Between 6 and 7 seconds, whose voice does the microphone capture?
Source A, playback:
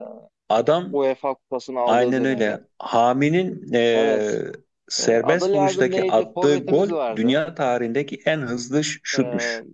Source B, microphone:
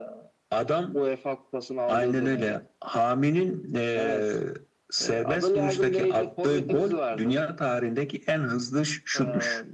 echo only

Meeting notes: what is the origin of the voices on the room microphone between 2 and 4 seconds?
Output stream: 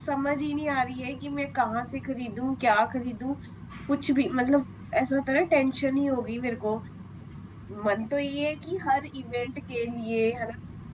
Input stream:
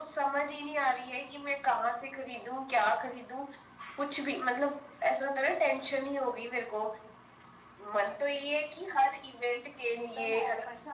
echo only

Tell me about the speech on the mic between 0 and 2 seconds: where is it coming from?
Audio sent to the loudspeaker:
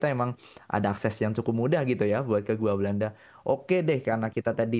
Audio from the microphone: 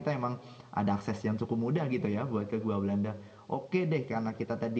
echo only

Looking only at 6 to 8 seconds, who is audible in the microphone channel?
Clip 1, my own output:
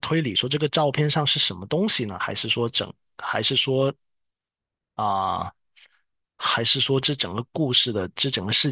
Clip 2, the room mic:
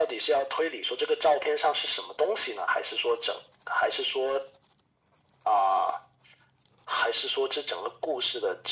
echo only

